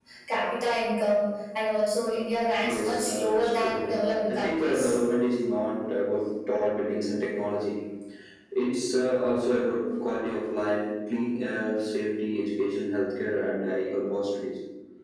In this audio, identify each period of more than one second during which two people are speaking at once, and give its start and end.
2.6-4.9

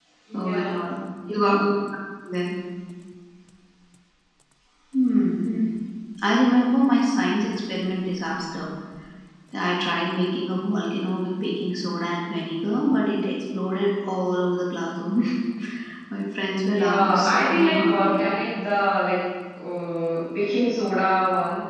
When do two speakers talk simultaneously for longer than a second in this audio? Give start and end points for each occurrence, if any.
16.7-18.2

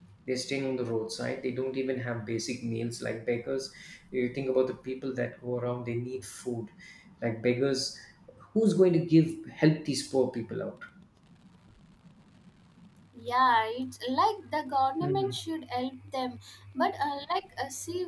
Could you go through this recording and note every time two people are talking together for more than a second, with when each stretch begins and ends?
none

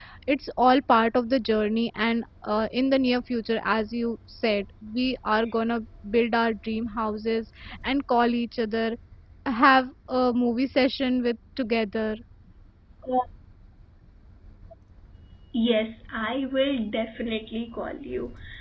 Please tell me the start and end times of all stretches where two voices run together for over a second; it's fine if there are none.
none

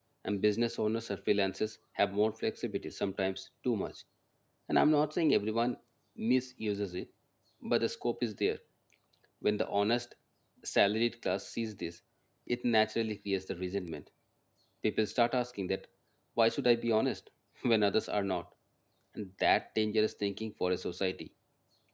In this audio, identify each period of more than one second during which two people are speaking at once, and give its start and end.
none

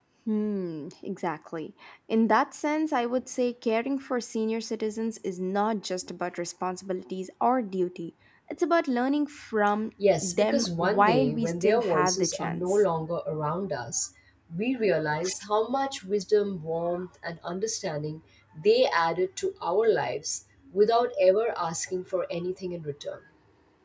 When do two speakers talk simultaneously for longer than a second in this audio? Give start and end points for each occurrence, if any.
10.2-12.8

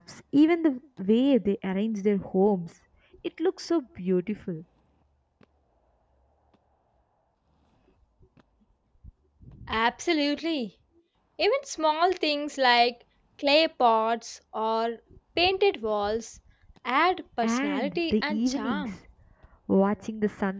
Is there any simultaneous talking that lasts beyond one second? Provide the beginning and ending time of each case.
17.4-18.9

